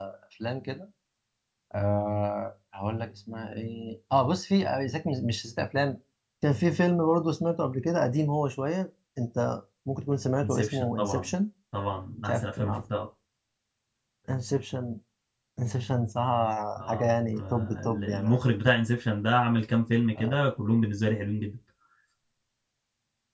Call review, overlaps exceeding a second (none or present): present